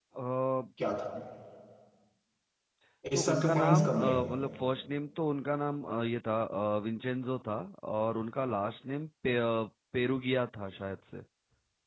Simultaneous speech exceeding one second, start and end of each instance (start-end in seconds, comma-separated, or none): 3.1-4.3